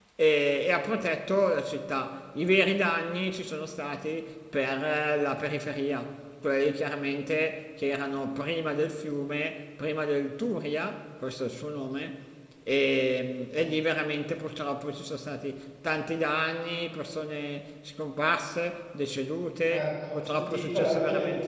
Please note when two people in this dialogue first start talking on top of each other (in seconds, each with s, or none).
19.7 s